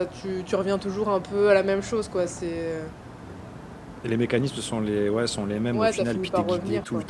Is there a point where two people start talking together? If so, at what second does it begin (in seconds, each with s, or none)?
5.7 s